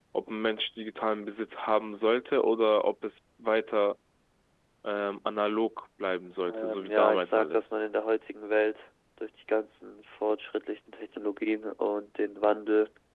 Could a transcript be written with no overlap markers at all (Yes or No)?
No